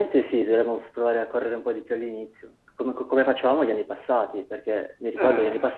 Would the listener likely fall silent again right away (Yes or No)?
Yes